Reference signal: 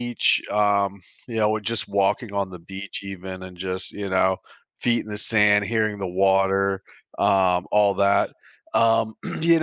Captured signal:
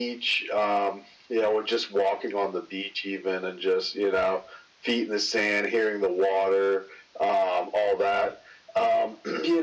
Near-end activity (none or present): none